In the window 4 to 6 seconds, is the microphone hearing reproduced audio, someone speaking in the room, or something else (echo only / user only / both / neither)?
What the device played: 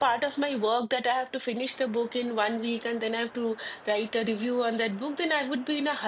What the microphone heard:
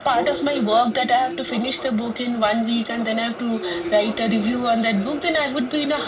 both